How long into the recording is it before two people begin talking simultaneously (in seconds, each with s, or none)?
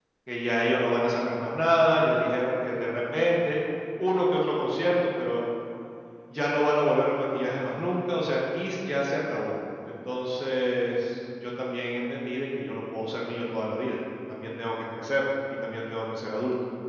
none